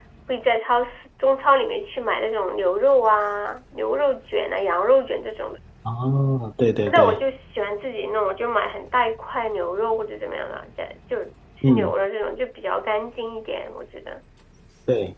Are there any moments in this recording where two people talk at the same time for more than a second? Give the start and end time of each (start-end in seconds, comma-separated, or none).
none